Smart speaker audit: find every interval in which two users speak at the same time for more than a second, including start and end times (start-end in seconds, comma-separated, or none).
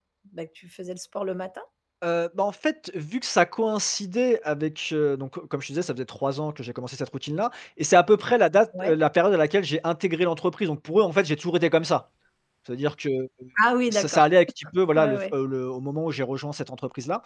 none